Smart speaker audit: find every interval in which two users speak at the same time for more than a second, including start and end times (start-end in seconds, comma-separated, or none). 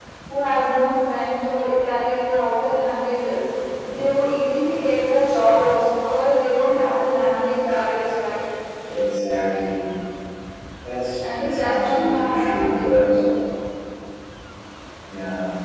11.4-13.1